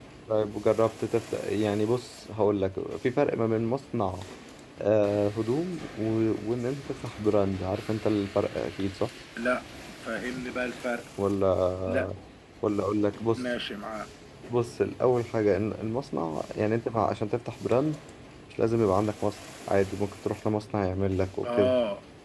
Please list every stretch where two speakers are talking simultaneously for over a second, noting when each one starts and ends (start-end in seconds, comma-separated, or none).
none